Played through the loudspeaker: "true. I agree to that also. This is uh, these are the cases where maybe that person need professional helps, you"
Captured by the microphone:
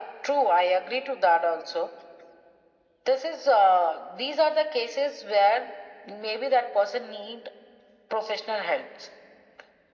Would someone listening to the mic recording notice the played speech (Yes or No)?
Yes